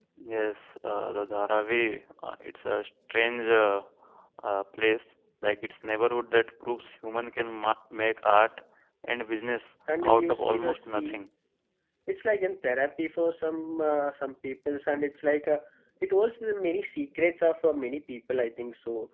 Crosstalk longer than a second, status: present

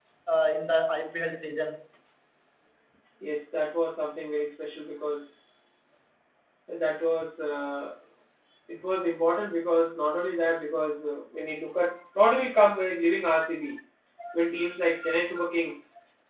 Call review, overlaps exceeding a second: none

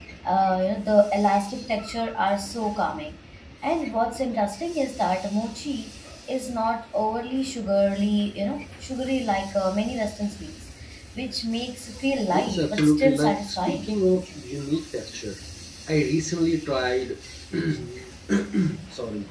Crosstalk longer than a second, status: present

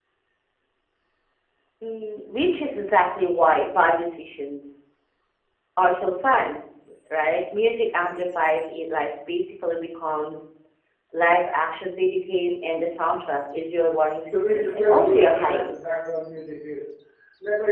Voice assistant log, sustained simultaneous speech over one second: present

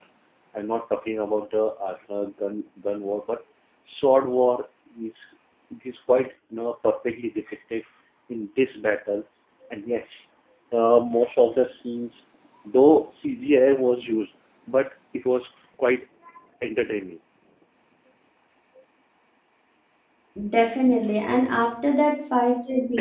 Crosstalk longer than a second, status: none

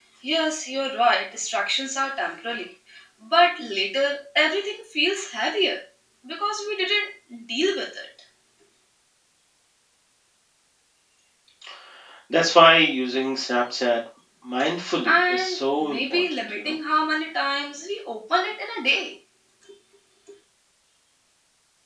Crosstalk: present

